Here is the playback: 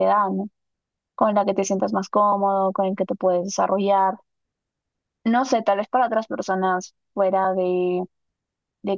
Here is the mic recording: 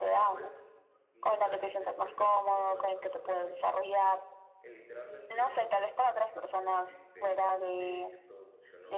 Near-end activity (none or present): present